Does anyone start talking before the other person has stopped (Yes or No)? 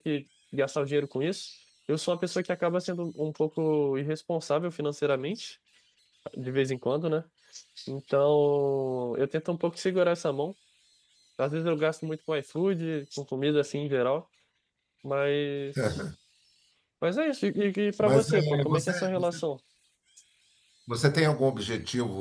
Yes